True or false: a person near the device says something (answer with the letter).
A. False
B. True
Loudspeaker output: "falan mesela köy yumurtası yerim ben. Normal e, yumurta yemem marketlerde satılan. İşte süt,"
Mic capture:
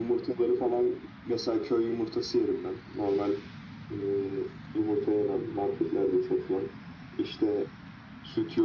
A